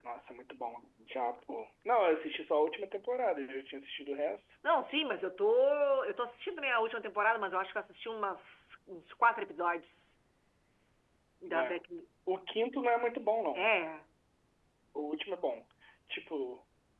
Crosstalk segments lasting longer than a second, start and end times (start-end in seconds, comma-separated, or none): none